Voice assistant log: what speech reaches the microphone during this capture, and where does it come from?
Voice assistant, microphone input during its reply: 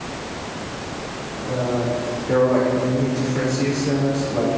user only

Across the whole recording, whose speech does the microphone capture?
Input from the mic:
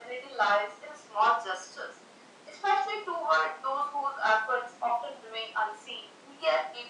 echo only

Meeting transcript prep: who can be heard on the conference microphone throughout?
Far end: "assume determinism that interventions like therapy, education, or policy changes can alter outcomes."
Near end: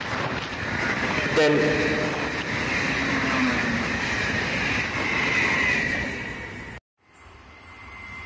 user only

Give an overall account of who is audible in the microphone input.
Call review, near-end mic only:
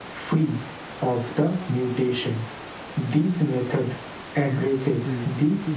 both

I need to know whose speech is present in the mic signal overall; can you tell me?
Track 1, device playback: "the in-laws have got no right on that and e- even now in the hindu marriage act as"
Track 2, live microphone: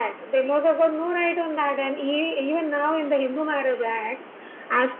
echo only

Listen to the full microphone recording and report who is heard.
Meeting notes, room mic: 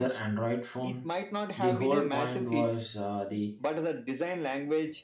both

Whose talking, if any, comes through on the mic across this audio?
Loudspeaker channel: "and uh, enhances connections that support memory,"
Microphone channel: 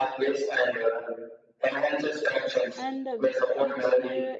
both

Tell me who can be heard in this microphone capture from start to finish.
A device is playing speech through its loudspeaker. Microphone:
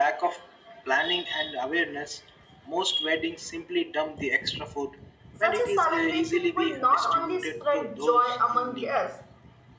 both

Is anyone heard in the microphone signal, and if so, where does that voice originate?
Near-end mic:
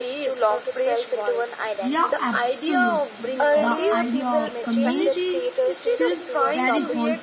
both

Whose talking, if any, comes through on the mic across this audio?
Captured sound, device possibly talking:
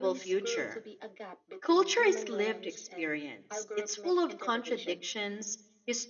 both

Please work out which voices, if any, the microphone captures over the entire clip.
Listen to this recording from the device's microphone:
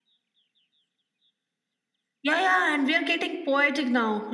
echo only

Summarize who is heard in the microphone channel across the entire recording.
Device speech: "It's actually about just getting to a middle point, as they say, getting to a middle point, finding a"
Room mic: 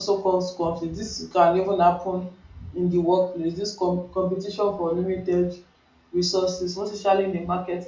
user only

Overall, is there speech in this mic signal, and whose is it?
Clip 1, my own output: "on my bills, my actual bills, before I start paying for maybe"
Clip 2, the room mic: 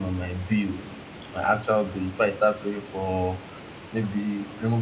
echo only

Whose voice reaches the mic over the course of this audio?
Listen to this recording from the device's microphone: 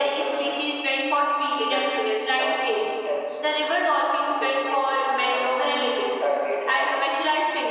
echo only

